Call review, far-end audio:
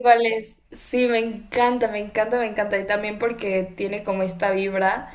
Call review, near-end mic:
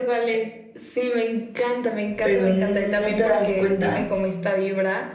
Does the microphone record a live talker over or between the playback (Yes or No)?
Yes